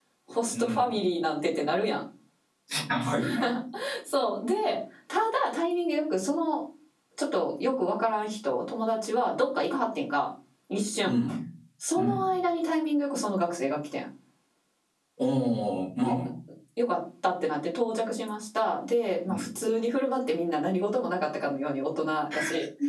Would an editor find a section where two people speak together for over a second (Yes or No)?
No